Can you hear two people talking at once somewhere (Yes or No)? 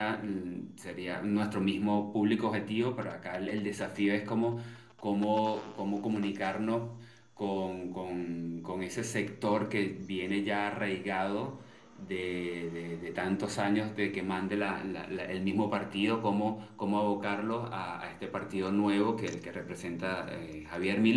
No